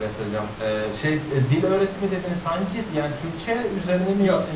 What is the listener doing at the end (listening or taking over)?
taking over